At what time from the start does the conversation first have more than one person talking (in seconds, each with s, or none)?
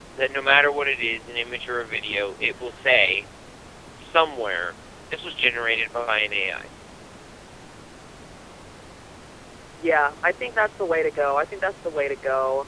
none